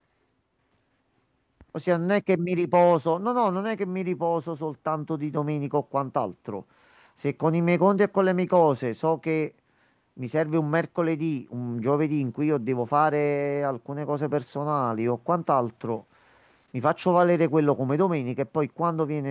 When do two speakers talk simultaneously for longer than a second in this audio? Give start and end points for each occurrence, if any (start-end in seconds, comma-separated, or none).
none